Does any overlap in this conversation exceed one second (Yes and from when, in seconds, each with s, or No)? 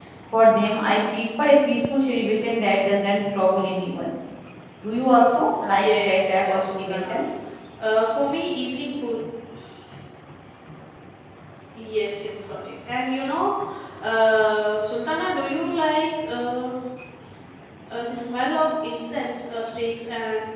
Yes, from 5.8 s